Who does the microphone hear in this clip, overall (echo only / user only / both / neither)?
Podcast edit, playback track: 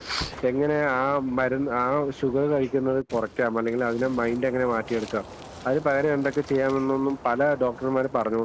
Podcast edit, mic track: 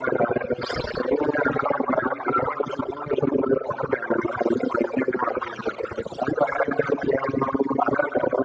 echo only